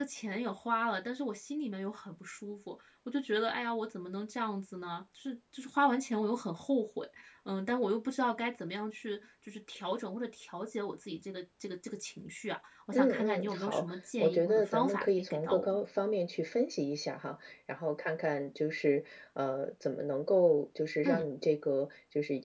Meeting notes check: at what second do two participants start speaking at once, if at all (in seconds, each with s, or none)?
12.9 s